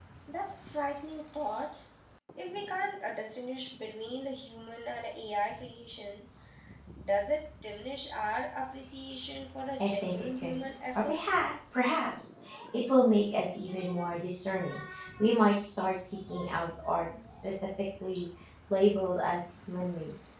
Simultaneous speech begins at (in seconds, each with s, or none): 9.8 s